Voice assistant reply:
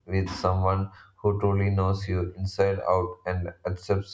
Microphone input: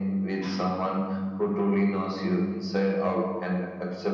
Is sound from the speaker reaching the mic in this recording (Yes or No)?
Yes